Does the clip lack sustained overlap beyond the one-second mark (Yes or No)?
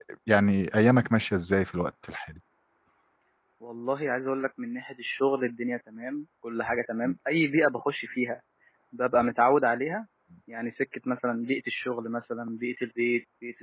Yes